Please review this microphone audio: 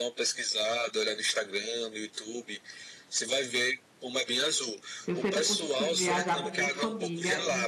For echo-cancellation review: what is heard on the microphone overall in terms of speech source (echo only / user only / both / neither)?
both